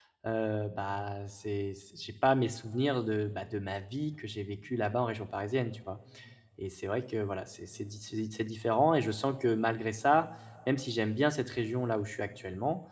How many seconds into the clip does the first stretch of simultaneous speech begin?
none

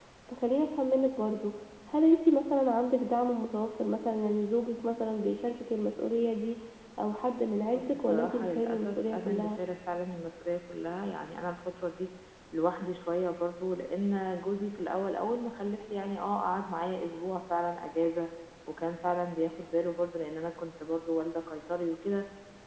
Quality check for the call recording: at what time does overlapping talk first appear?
8 s

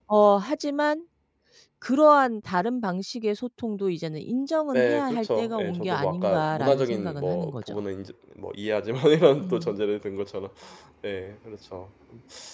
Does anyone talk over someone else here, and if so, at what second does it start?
5 s

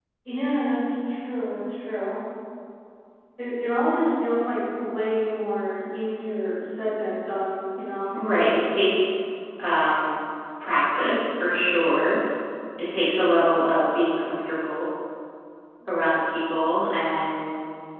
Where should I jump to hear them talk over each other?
none

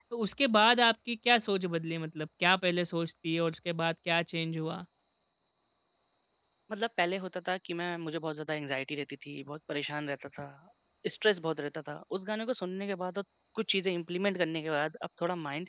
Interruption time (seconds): none

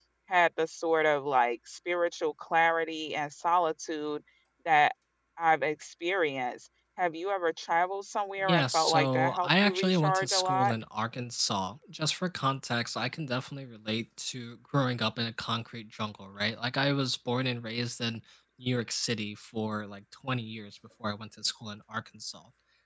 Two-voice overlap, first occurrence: 8 s

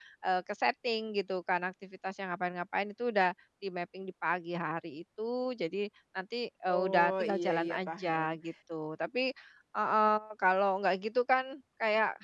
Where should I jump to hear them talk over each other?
7 s

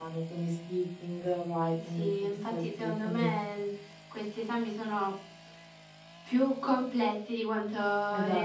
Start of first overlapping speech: 2 s

